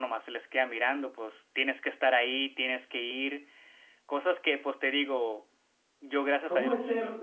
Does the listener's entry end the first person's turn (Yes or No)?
Yes